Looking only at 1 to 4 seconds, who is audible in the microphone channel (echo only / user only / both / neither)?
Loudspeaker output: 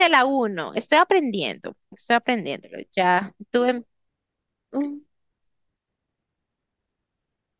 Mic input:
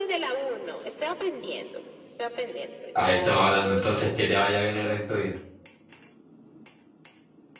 both